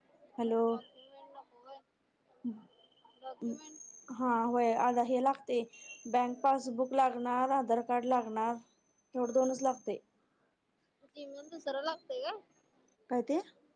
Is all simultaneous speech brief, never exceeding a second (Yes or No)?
Yes